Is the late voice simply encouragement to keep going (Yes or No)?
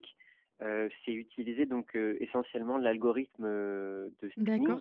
No